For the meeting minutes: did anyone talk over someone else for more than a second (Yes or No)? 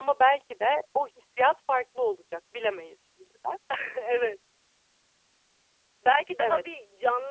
No